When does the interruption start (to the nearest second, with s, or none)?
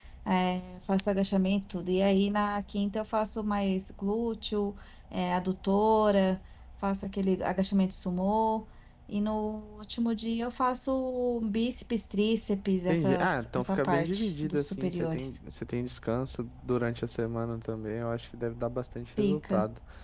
13 s